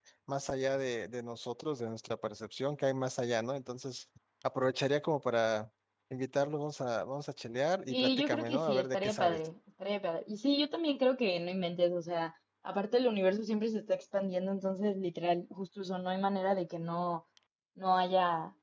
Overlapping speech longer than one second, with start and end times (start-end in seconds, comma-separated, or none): 7.9-9.5